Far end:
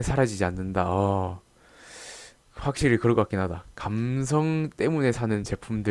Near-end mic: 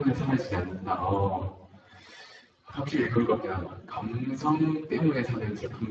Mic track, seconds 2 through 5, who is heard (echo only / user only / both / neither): echo only